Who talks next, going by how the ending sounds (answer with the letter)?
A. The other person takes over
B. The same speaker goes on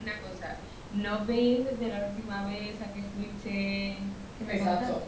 A